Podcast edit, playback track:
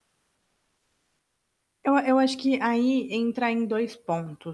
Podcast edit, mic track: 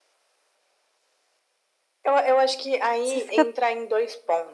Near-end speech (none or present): present